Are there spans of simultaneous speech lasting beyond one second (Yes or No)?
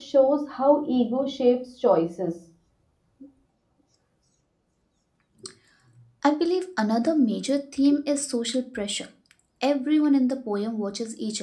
No